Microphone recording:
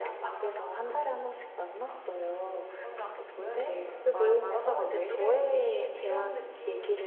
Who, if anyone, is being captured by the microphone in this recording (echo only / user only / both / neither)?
both